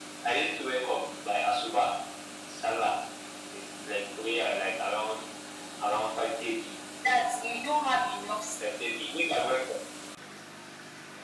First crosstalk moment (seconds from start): none

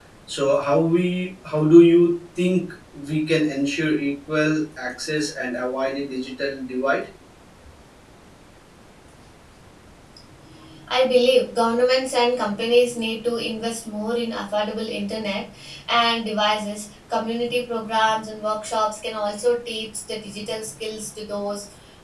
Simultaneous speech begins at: none

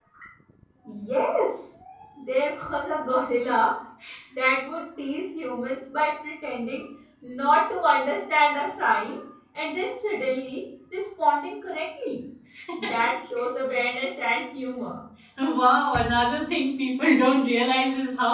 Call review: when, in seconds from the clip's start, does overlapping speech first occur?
none

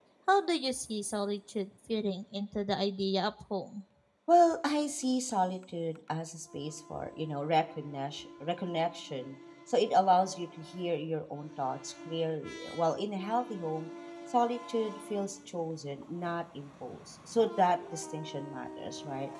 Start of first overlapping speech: none

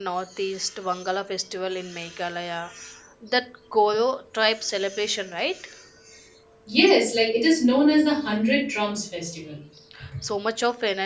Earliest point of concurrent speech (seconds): none

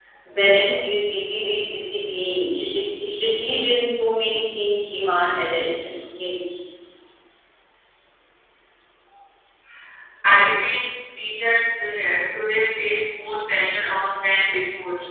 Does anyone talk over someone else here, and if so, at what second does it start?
none

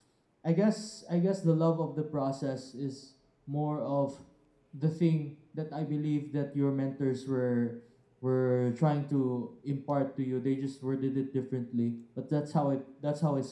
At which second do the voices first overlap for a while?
none

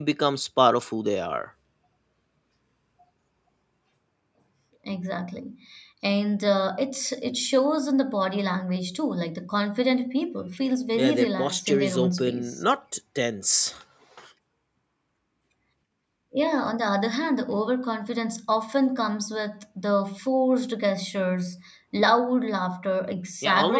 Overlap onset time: 11.0 s

